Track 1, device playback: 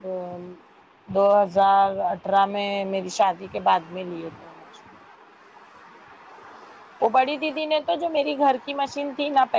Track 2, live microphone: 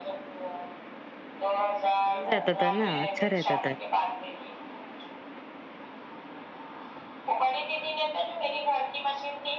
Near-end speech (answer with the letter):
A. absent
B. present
B